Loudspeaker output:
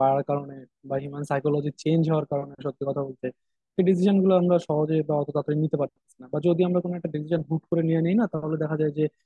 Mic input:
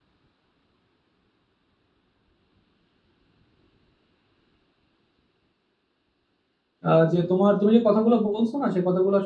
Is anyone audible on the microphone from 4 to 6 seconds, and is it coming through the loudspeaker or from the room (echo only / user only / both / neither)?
neither